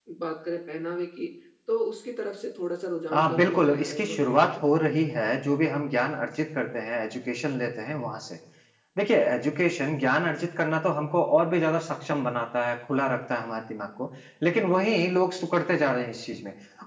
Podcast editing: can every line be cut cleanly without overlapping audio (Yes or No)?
No